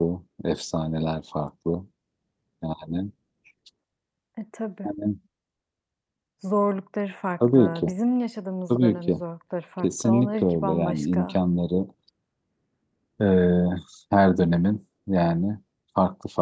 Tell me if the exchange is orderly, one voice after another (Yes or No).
No